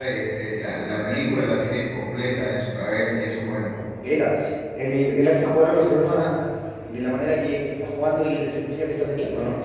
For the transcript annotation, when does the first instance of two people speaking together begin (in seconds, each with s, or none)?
none